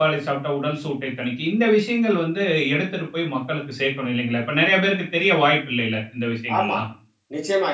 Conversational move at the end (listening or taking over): taking over